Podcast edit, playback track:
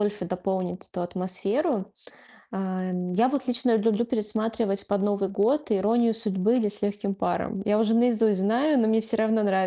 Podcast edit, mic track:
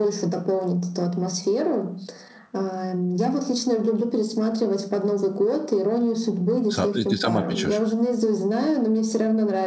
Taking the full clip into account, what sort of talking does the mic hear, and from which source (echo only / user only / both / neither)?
both